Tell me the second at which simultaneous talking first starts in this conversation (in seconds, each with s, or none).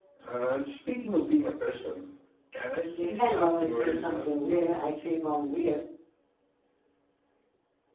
2.9 s